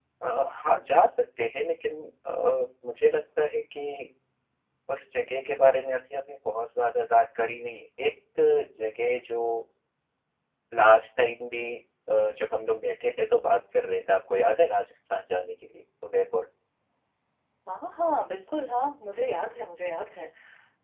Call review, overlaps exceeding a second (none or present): none